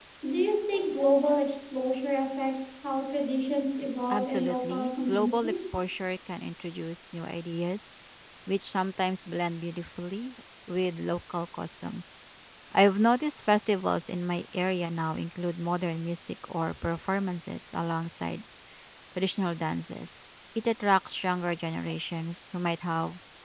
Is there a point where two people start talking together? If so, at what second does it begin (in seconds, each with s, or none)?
4.1 s